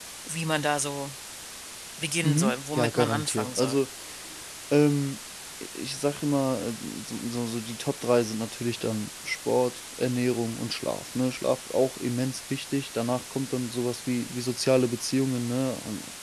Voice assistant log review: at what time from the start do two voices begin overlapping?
2.2 s

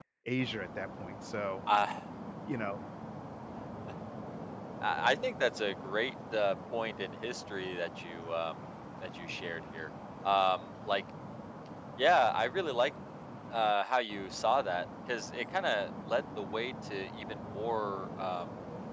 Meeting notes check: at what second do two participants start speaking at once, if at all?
none

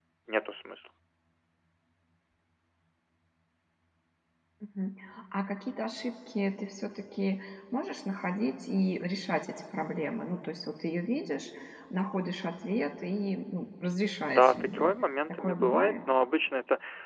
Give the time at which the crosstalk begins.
14.3 s

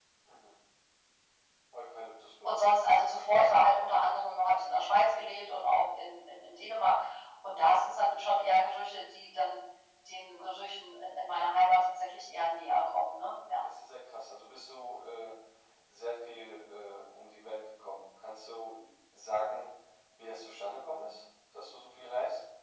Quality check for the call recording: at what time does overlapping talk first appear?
none

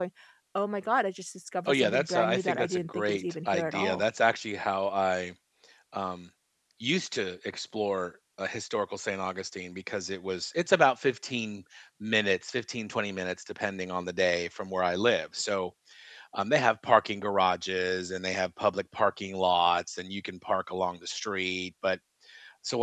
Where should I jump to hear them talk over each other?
1.7 s

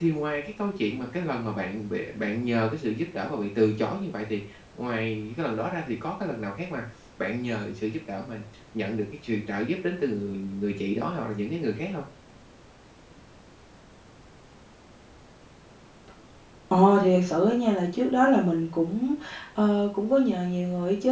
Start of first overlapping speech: none

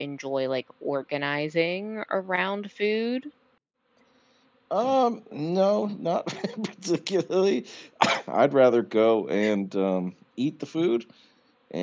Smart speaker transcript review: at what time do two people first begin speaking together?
none

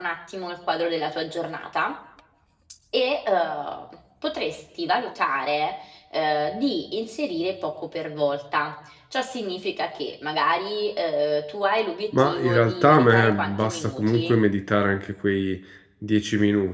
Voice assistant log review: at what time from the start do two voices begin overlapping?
12.1 s

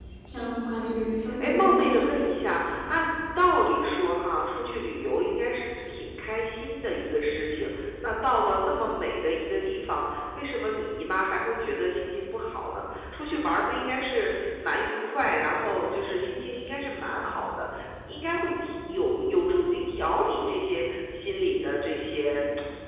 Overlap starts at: 0.8 s

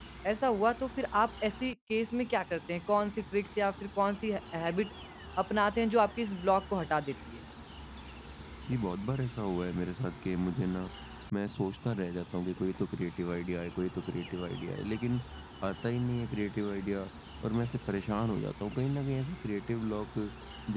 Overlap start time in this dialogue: none

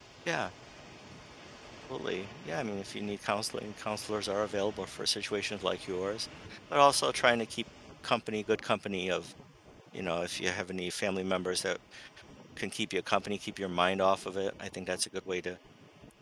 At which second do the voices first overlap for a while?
none

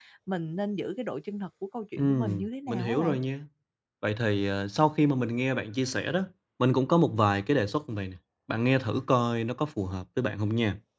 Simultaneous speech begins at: 2.0 s

